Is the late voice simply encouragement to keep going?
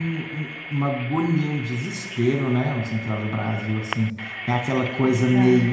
Yes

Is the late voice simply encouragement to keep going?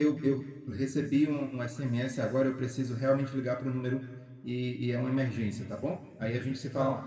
No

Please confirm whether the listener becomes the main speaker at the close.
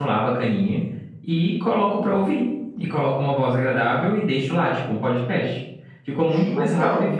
No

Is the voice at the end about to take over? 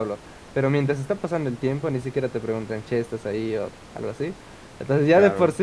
No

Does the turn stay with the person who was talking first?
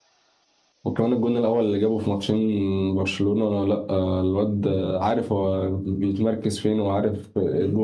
No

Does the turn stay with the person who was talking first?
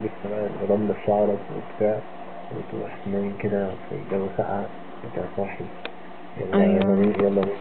Yes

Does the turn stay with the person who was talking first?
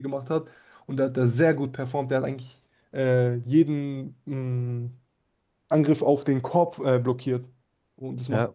Yes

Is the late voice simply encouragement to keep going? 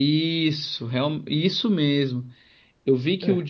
Yes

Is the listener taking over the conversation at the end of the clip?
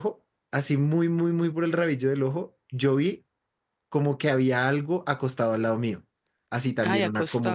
No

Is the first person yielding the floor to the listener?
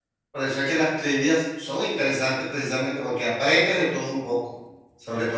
No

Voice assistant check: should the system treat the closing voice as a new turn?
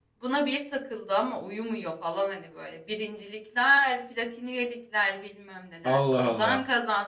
No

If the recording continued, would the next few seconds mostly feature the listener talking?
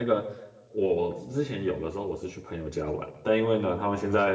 No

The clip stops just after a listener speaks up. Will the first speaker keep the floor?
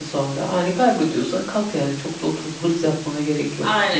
No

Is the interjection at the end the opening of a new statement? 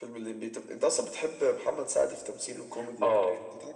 Yes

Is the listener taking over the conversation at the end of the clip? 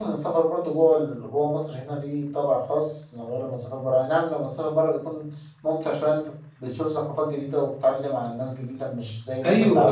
Yes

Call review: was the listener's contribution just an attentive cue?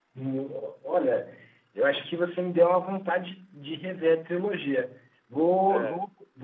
Yes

